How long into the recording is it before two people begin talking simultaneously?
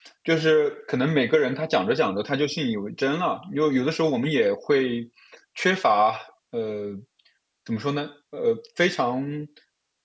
none

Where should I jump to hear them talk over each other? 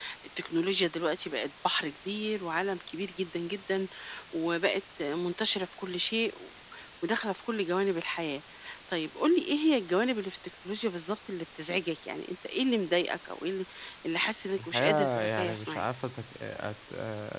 14.6 s

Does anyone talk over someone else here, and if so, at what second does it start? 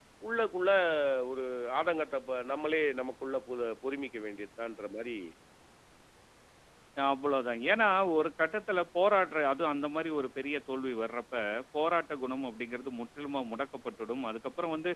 none

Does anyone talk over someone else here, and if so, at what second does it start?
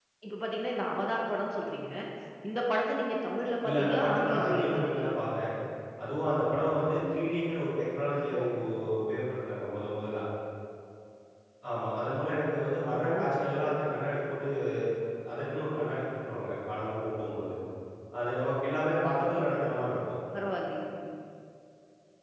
3.7 s

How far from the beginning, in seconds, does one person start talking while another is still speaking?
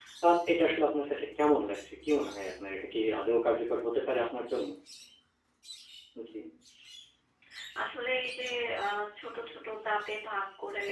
none

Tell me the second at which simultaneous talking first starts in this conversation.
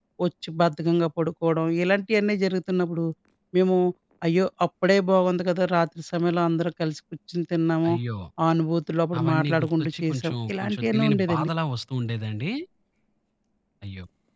9.2 s

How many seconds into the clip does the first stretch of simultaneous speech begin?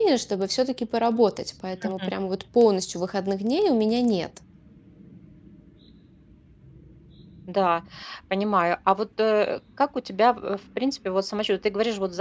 none

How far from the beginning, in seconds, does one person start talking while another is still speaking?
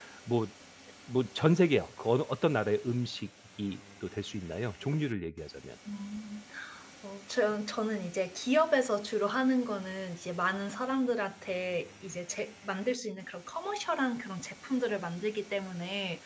none

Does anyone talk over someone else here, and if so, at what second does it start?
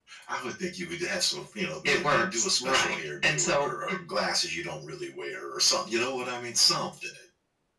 1.9 s

